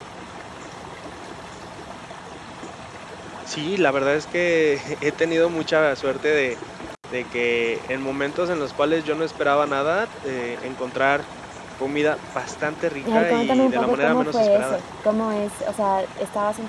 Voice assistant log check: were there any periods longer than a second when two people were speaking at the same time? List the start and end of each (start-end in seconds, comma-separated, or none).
13.1-14.8